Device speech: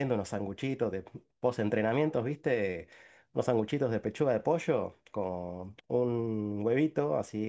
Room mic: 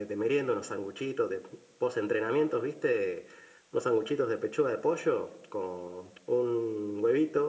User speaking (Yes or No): No